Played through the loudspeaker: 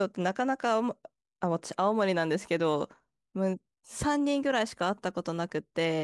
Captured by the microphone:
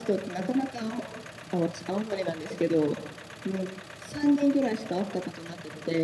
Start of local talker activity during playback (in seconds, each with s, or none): none